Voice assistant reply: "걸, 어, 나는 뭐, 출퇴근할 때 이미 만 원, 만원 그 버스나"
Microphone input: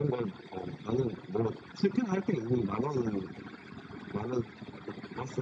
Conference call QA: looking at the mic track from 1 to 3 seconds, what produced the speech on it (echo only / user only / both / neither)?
echo only